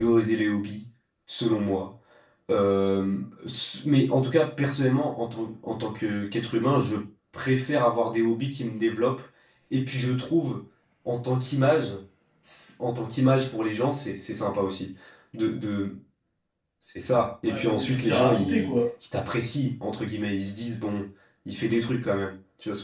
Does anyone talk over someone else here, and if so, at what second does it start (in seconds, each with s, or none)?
17.5 s